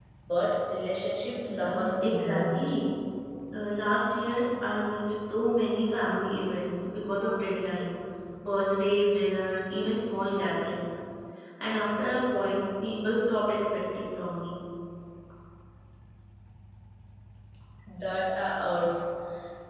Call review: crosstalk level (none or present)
present